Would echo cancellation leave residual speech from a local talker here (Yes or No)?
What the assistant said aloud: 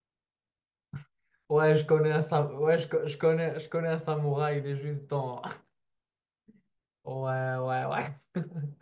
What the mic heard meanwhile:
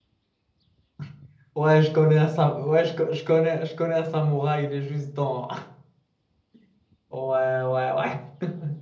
No